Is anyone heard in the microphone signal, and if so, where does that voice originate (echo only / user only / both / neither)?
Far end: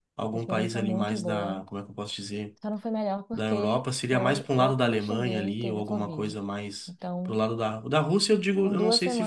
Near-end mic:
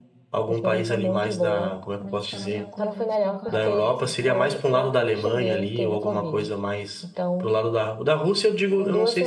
both